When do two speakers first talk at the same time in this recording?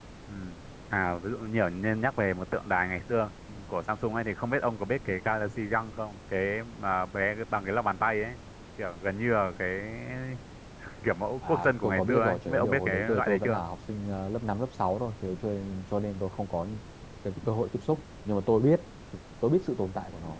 11.5 s

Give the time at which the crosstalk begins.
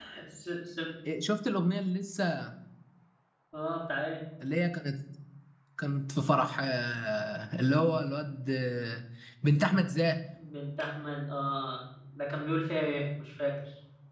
none

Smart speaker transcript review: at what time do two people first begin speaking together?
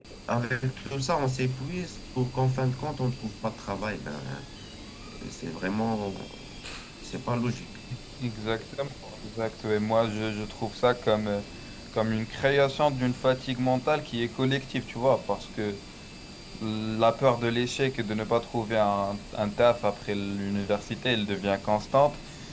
none

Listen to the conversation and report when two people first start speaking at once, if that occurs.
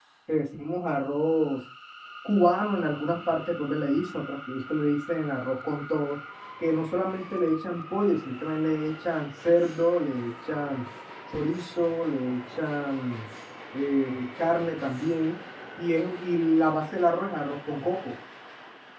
none

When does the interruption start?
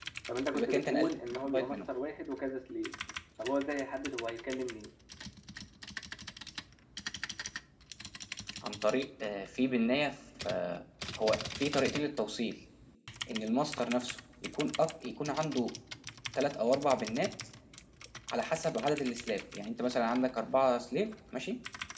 0.5 s

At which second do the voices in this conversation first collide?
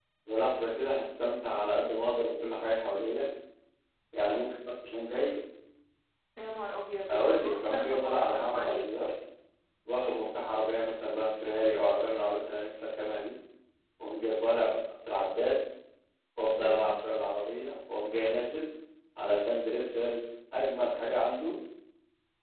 7.1 s

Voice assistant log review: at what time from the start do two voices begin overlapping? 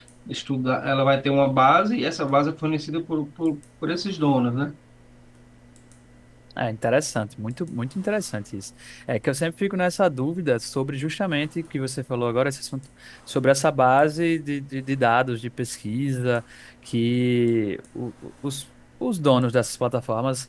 none

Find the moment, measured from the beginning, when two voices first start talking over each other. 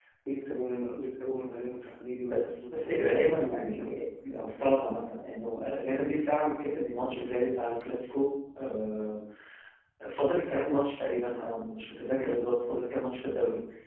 2.3 s

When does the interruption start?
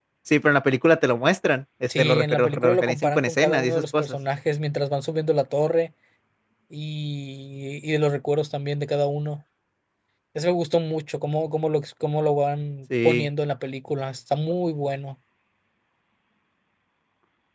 1.9 s

